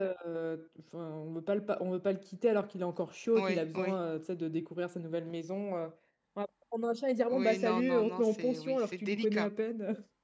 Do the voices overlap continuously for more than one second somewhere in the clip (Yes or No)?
Yes